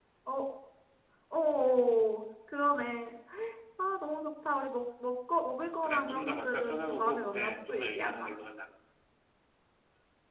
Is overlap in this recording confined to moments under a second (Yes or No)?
No